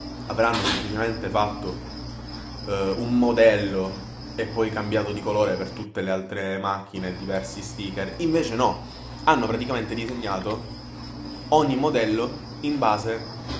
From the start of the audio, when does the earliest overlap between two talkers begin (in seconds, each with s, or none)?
none